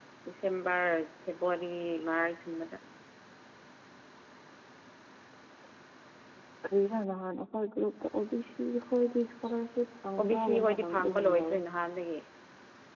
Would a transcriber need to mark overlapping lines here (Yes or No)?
Yes